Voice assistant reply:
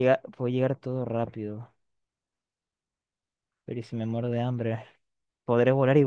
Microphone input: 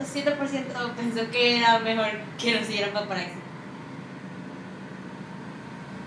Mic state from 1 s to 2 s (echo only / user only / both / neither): user only